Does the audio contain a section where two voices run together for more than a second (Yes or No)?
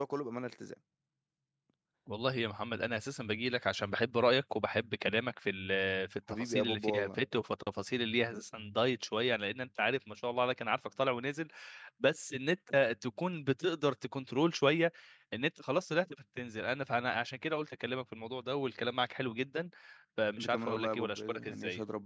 Yes